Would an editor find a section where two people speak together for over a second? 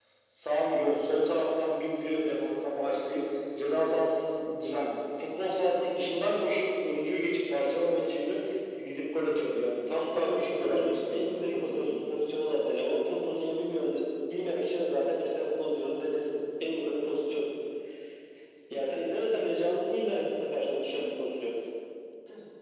Yes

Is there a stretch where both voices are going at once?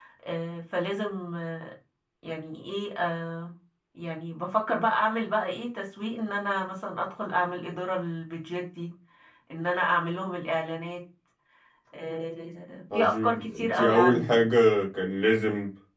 Yes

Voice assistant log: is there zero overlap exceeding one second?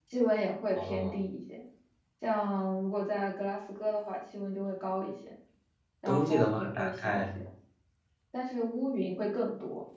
No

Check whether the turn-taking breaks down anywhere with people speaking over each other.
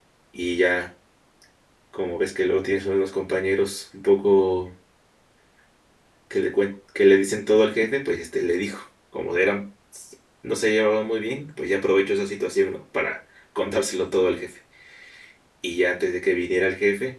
No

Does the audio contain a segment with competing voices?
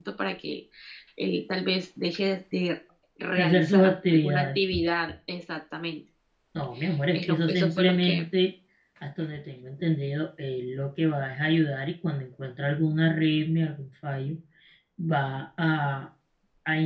Yes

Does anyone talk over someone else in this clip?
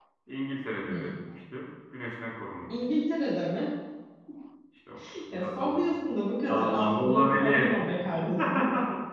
Yes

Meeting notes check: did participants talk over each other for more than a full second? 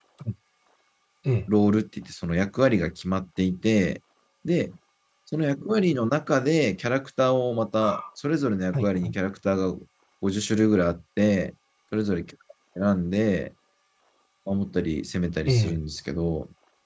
No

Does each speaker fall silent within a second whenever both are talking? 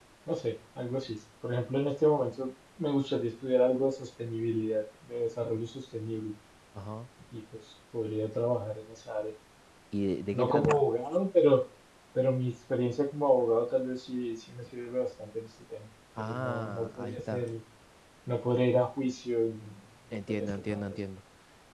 No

